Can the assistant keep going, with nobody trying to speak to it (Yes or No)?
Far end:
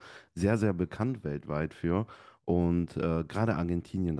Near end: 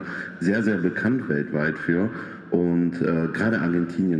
Yes